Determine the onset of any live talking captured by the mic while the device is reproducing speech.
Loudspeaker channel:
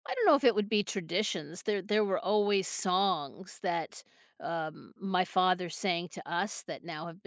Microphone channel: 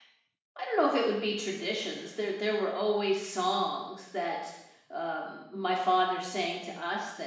none

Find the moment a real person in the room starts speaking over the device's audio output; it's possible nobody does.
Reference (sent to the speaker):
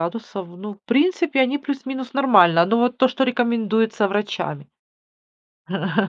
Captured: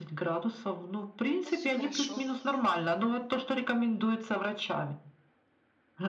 1.4 s

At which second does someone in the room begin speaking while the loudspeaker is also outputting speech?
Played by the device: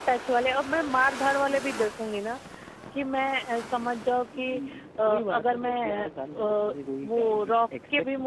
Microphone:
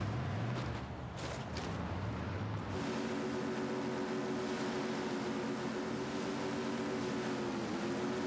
none

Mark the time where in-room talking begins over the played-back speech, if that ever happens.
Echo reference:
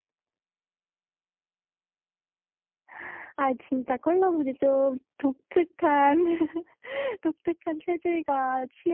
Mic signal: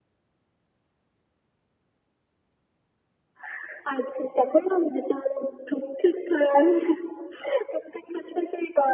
none

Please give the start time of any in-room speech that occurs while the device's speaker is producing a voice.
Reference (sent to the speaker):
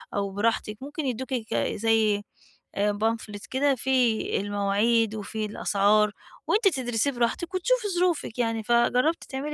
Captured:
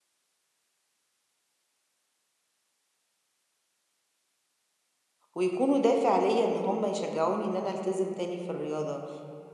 5.3 s

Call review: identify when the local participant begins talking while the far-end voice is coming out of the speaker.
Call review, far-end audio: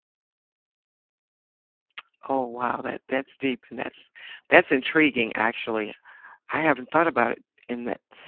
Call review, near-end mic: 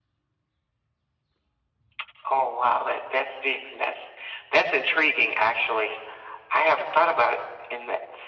none

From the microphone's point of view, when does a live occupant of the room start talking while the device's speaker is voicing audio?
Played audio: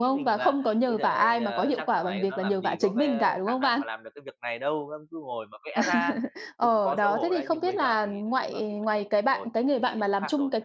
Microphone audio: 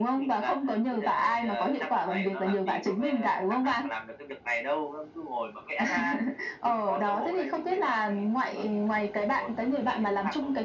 none

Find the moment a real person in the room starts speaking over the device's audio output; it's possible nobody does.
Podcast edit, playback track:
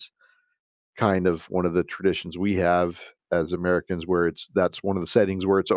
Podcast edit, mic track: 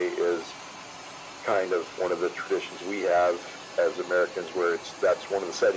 none

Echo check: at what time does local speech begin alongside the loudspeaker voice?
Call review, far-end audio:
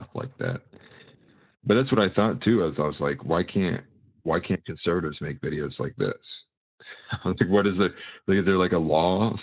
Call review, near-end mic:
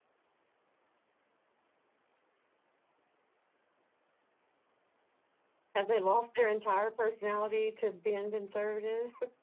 5.7 s

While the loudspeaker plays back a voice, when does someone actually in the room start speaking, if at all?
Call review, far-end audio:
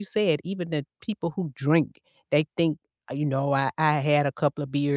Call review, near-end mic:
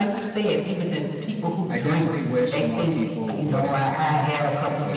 1.7 s

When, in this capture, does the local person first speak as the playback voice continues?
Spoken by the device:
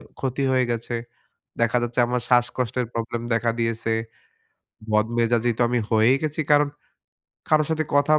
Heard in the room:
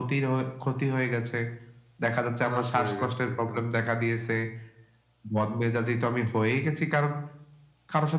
2.4 s

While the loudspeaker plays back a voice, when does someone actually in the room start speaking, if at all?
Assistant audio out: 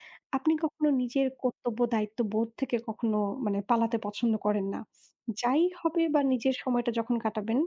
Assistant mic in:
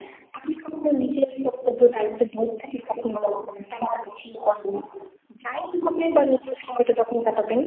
none

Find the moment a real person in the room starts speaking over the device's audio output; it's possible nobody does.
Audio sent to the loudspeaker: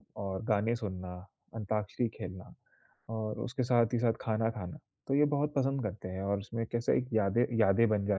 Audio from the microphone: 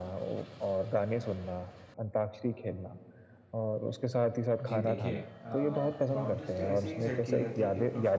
4.6 s

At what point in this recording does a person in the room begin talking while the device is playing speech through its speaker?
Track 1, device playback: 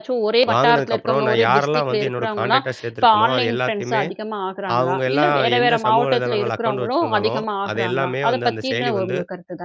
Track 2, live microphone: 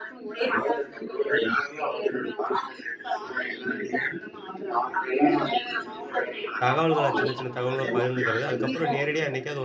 6.6 s

